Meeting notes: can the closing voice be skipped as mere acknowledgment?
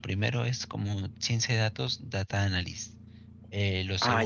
Yes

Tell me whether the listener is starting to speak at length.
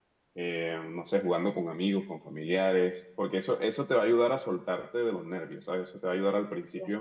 No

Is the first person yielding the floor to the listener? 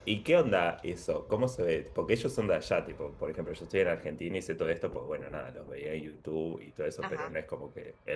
No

